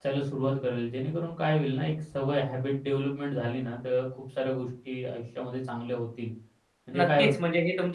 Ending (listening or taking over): taking over